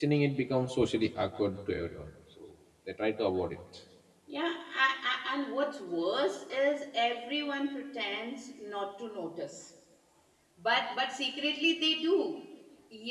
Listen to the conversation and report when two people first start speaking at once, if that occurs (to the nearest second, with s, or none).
none